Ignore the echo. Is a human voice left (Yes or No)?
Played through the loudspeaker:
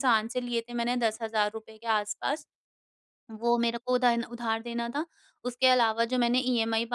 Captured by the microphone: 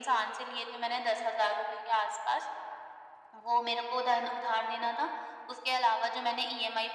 No